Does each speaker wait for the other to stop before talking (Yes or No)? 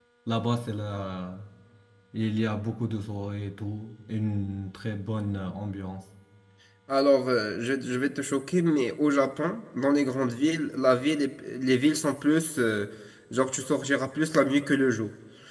Yes